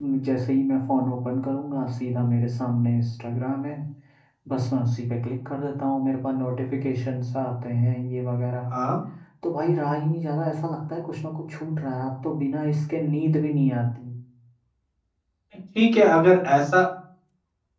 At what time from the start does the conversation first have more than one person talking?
none

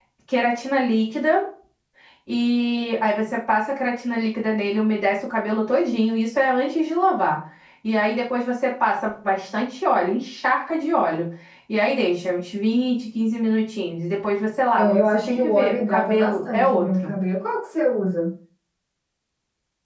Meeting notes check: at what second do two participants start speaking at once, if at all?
14.8 s

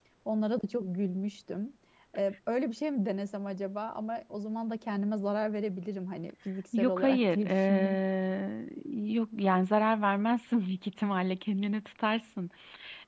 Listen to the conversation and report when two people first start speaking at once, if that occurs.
6.7 s

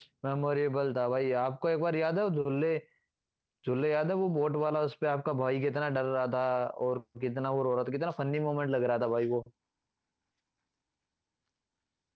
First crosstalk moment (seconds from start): none

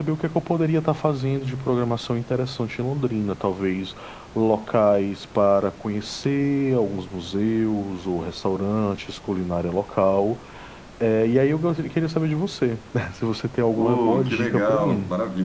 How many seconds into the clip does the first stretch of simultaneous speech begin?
13.8 s

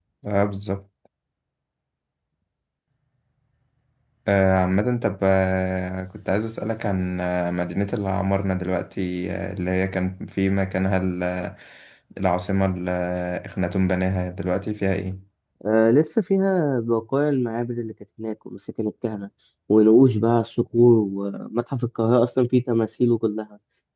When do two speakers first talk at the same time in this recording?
none

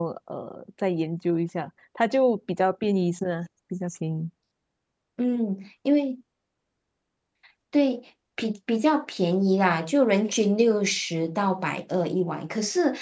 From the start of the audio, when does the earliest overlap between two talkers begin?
none

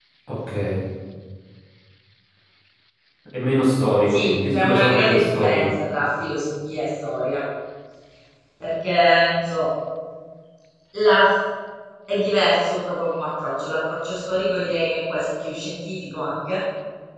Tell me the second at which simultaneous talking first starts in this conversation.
4.1 s

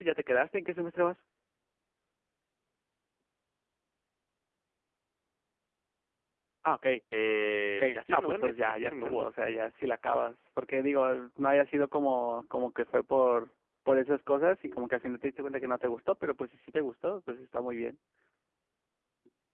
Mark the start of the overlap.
7.7 s

